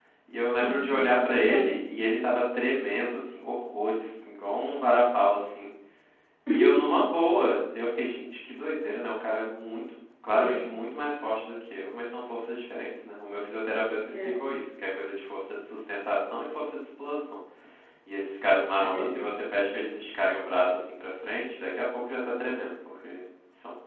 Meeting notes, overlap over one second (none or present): present